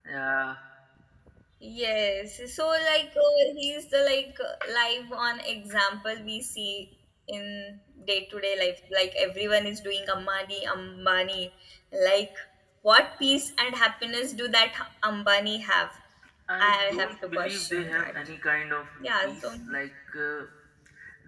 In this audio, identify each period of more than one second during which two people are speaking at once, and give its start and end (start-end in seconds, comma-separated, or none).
16.6-18.1